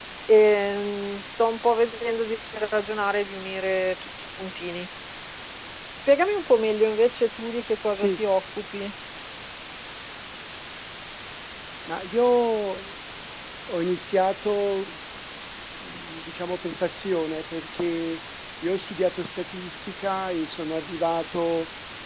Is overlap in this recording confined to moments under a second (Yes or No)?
Yes